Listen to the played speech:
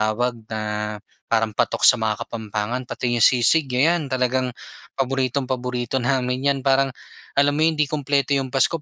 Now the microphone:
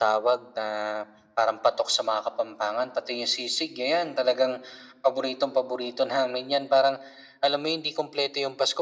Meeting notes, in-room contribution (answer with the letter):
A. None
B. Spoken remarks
A